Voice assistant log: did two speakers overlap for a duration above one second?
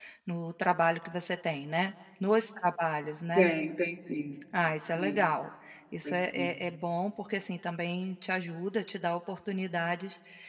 No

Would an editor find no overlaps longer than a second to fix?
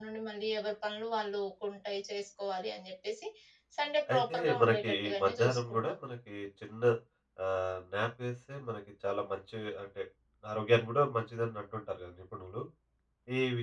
No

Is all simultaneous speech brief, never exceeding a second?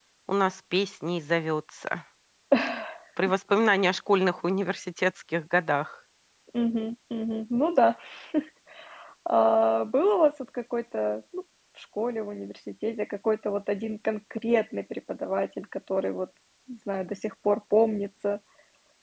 Yes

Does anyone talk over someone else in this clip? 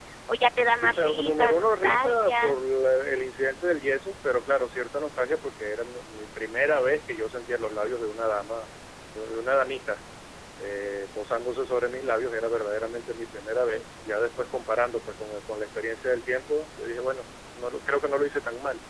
Yes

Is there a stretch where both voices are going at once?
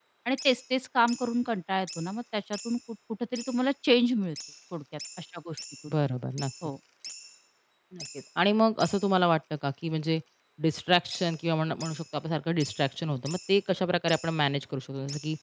No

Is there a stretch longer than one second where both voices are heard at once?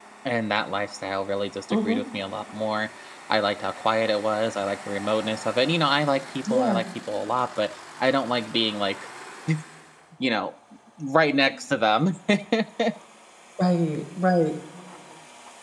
No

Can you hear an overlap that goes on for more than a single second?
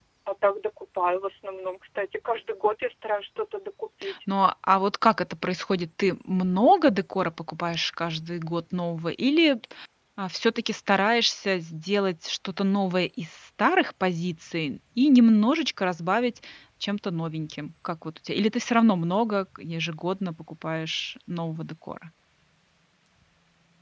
No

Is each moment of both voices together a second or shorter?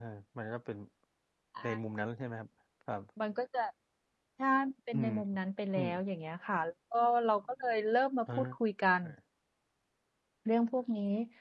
Yes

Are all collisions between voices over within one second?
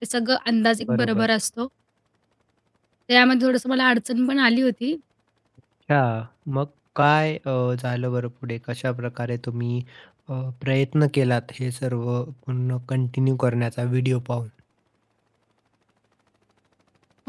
Yes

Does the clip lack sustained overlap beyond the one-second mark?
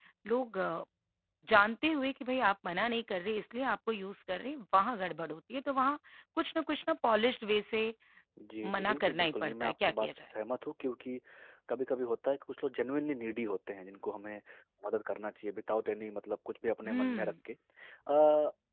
No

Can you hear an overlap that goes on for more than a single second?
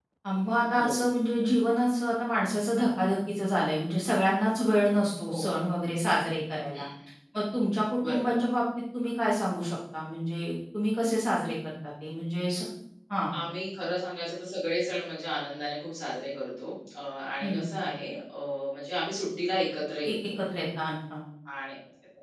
No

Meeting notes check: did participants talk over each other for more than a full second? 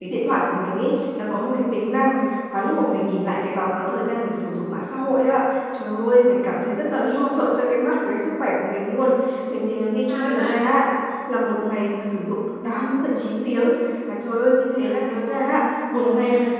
Yes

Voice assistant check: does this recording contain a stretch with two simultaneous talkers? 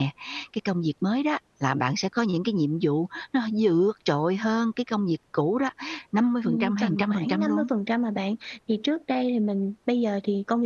Yes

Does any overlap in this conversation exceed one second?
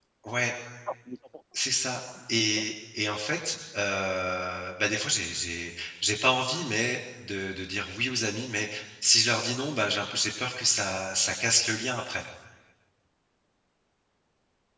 No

